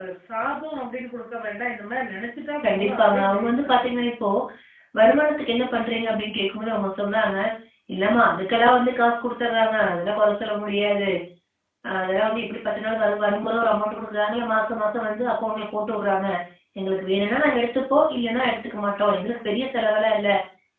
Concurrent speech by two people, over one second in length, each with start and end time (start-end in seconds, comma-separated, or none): 2.6-4.0